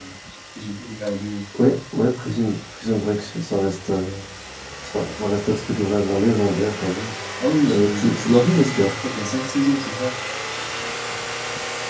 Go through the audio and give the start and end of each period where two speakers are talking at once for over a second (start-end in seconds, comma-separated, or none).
7.6-8.9